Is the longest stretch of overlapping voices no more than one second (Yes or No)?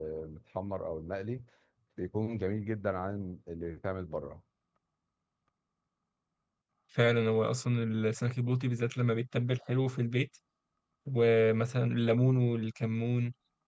Yes